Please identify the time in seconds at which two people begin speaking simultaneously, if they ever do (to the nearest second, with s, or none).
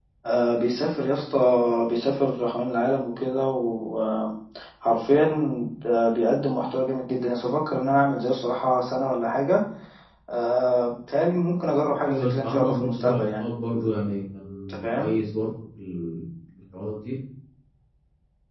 12 s